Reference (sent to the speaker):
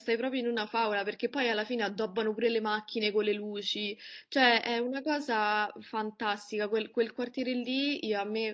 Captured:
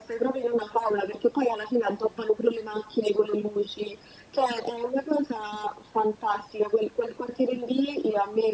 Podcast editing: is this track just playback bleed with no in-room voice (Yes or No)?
Yes